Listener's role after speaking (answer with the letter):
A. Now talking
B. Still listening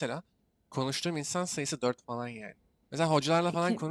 B